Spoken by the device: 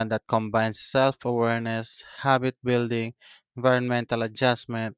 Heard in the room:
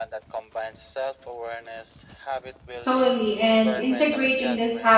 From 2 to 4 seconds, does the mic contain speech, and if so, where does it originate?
both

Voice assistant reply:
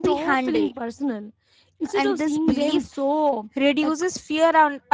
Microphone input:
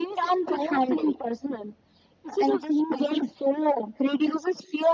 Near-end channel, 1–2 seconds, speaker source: echo only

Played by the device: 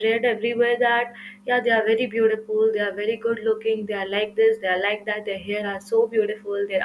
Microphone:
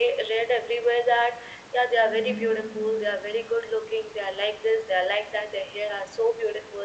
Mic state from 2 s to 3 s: both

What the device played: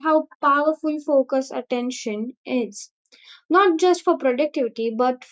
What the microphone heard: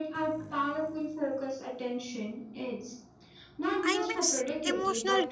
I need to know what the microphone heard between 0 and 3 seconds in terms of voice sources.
echo only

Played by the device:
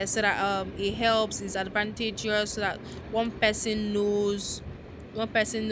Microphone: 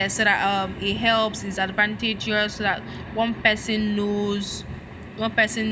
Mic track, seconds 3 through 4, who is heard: echo only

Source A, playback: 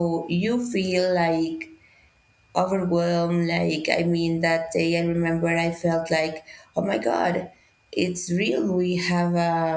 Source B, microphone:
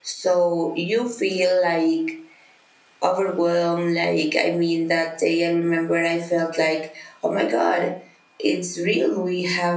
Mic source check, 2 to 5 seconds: echo only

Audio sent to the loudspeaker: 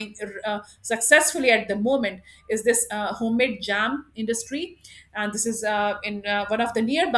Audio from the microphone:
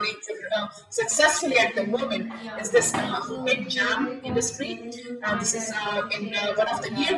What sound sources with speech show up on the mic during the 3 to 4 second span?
both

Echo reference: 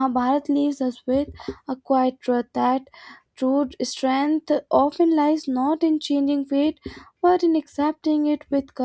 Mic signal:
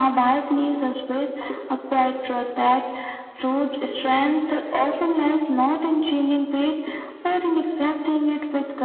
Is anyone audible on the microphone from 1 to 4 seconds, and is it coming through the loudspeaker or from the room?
echo only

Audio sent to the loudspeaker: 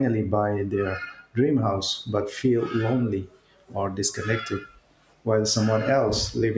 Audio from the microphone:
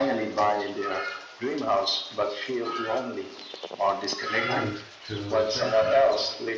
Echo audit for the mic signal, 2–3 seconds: echo only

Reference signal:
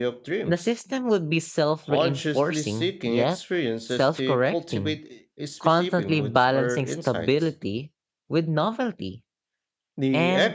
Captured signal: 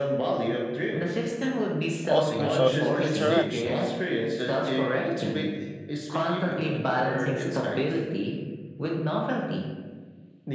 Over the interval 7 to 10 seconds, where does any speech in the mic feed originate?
echo only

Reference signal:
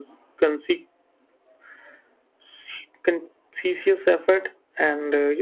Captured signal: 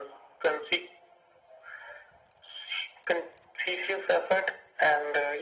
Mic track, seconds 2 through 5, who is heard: echo only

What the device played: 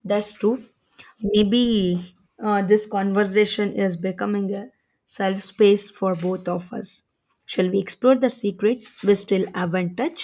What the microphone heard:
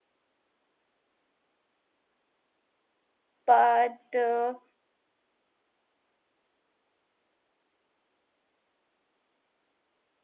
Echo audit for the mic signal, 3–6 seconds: user only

